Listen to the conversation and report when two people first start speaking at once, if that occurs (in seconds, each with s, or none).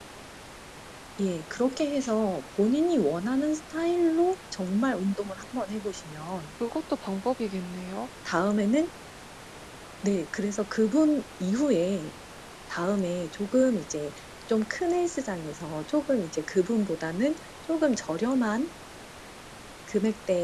none